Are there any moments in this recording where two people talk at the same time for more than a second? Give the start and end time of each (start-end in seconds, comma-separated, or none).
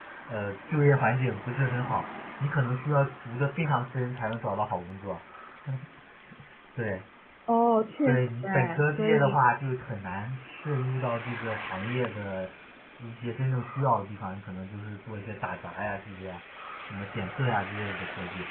8.0-9.4